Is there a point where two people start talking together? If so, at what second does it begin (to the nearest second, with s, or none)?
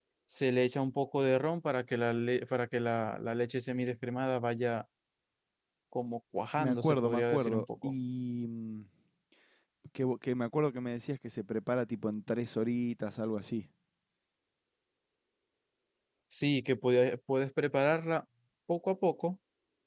7 s